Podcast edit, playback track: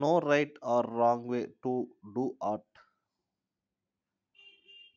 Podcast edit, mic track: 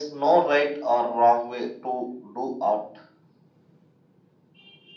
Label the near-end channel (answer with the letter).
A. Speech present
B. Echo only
B